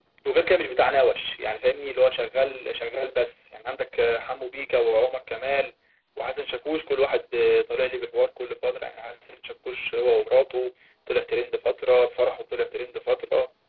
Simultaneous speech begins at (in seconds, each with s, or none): none